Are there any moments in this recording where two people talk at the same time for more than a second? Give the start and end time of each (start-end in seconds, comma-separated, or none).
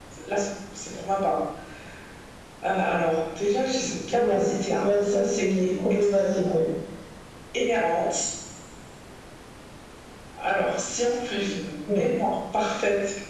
4.8-6.5